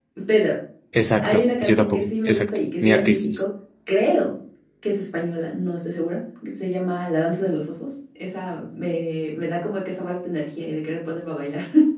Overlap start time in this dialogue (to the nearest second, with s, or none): 1 s